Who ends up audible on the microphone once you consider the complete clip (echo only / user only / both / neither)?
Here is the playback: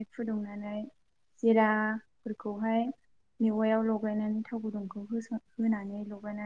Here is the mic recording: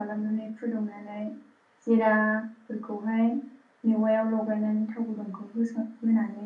echo only